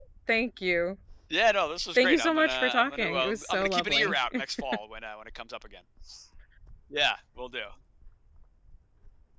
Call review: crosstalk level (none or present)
present